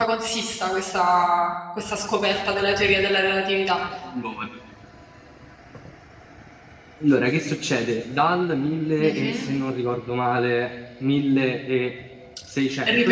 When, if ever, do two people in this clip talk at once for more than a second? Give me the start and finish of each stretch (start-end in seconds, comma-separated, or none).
none